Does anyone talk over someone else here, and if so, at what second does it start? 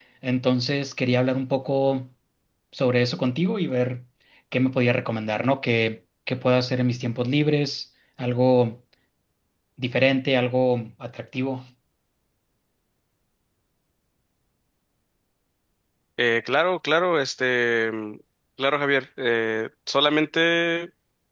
none

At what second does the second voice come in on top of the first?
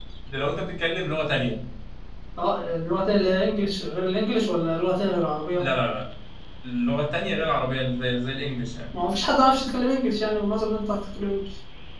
none

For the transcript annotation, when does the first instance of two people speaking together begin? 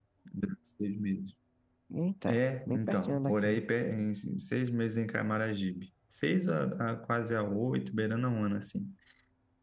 2 s

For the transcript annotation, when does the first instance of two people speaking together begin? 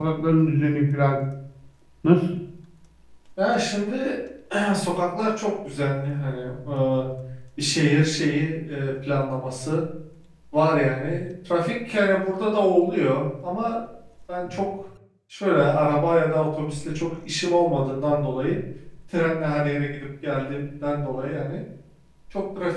none

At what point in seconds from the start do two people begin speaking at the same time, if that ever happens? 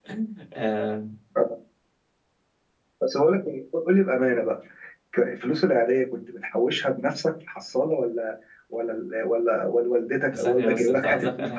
10 s

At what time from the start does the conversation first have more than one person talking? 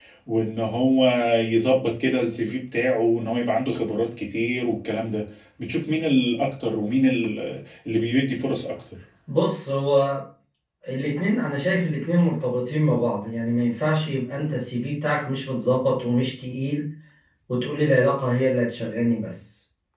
none

